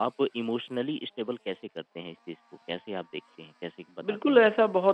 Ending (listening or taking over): taking over